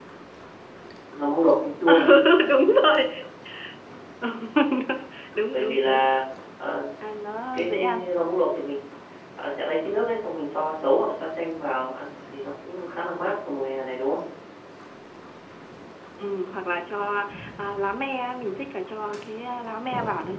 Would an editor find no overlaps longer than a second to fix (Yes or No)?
Yes